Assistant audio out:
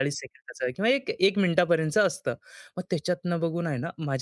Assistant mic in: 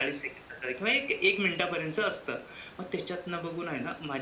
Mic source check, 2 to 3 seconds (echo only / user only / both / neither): echo only